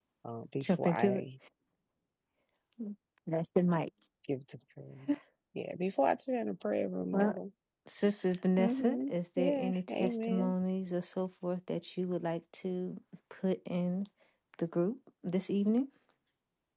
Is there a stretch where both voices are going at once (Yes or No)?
Yes